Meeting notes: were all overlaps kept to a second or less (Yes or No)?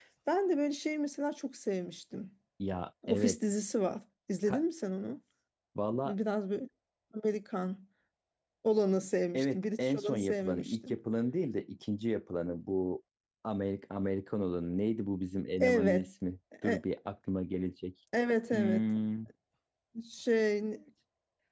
No